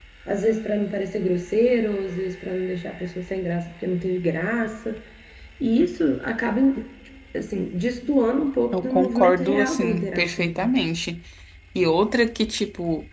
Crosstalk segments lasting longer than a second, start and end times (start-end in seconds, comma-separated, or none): 8.7-10.7